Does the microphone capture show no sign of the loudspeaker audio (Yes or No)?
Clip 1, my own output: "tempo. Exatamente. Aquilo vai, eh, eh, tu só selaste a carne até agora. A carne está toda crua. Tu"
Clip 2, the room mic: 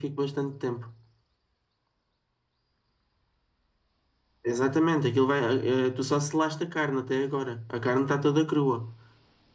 No